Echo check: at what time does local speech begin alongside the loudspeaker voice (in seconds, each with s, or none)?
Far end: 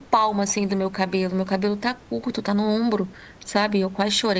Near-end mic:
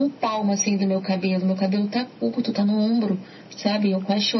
none